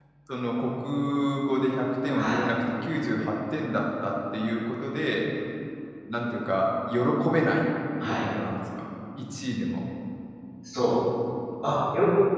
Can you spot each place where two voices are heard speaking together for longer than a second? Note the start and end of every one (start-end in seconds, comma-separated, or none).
none